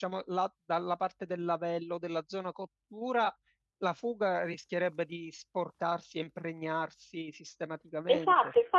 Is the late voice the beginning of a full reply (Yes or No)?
Yes